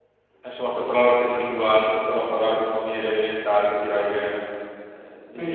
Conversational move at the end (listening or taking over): taking over